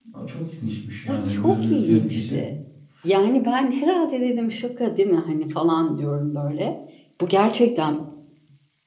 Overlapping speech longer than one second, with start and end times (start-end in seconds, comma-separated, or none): 1.1-2.4